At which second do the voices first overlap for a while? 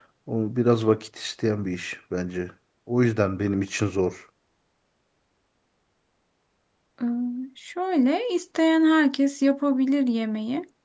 none

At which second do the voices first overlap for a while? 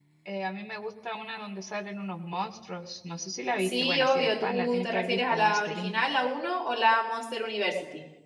3.6 s

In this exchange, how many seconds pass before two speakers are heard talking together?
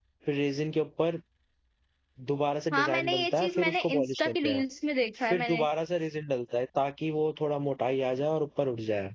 2.7 s

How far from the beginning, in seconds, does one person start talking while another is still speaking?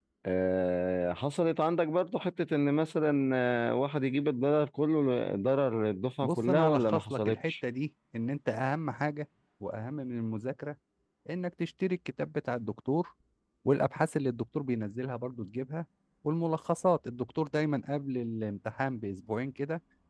6.2 s

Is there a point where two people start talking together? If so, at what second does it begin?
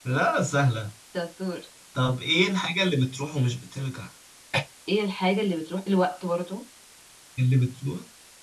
none

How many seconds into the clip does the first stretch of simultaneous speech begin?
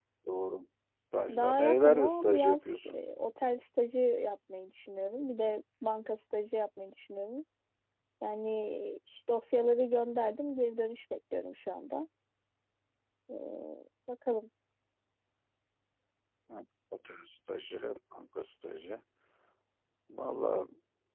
1.3 s

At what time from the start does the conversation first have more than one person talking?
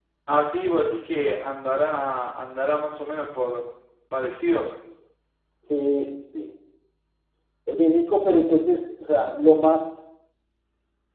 none

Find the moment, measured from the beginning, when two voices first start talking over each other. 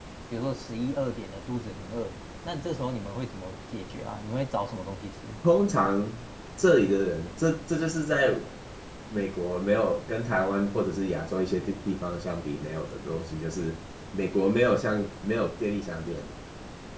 none

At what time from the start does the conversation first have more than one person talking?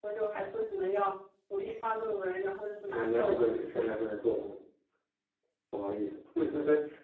2.9 s

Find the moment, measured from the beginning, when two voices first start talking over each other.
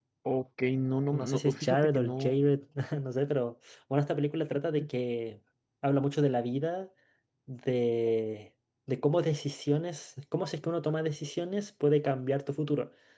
1.1 s

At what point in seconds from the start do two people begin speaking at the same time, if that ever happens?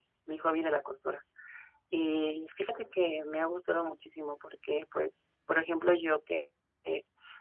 none

